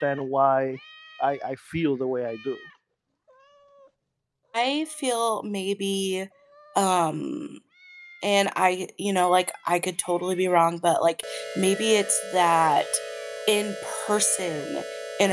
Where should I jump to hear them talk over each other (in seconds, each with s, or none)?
none